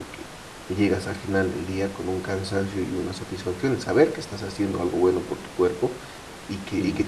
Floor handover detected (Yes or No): No